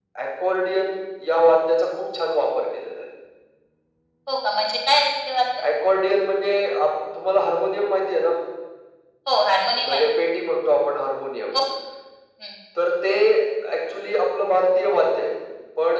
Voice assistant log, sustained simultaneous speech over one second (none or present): none